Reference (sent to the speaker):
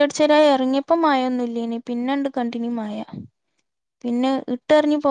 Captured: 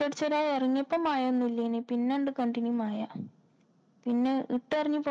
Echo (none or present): present